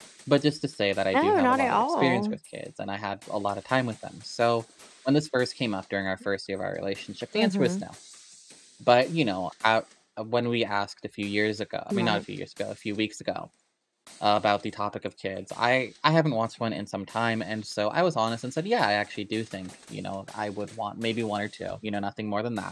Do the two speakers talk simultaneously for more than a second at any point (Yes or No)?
Yes